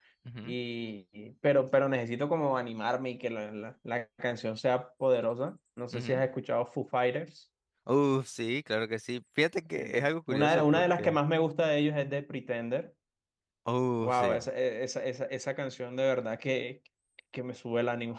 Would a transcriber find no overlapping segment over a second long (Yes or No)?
No